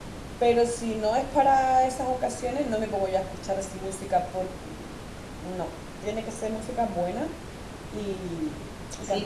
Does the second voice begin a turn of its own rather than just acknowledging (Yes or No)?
Yes